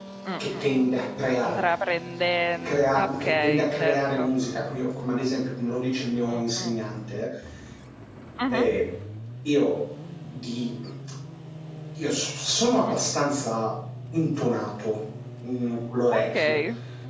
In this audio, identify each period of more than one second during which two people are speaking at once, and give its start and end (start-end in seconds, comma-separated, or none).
2.6-4.3